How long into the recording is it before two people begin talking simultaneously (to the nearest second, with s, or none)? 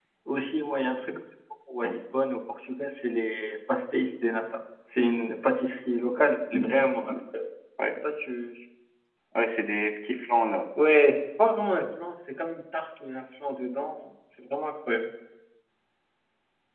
none